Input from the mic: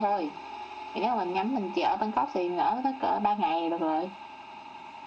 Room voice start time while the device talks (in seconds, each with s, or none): none